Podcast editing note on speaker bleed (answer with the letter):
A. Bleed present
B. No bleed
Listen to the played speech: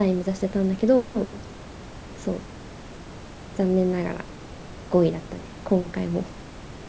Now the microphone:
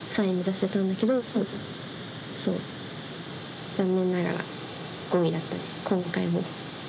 A